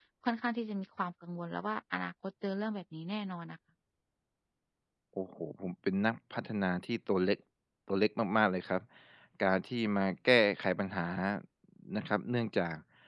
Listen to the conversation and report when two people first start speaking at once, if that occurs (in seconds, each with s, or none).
none